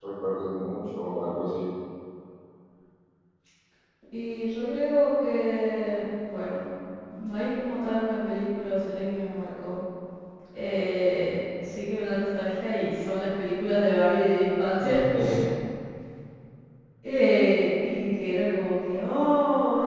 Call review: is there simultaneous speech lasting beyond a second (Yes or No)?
No